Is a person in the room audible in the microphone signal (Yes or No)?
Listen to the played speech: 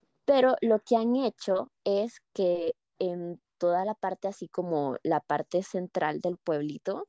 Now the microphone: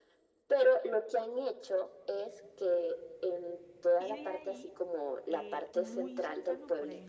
Yes